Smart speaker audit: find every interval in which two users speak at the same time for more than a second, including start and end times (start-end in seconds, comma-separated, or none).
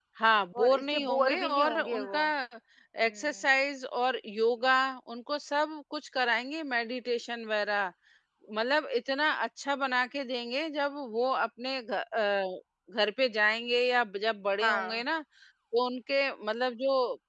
0.6-2.2